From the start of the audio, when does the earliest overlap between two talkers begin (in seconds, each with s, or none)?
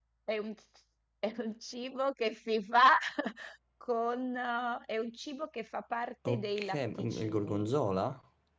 6.2 s